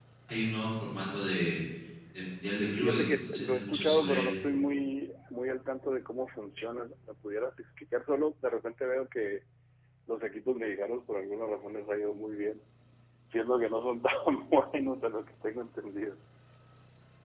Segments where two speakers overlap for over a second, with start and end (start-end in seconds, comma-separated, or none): 2.7-4.4